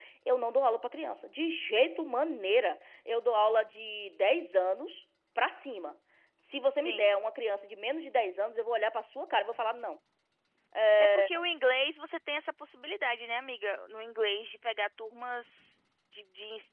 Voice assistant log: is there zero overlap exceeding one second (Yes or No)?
Yes